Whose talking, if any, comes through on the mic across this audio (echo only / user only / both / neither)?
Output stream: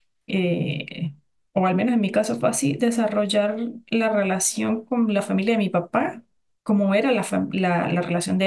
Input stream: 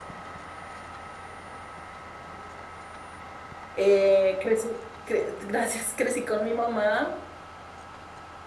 user only